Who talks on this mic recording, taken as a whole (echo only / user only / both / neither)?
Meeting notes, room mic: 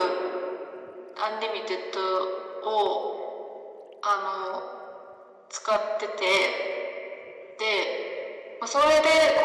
echo only